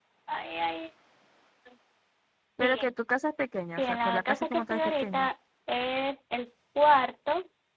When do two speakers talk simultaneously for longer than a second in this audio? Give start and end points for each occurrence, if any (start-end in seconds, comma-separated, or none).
3.7-5.3